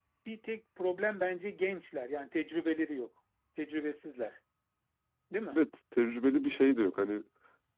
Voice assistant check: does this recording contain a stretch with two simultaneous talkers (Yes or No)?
No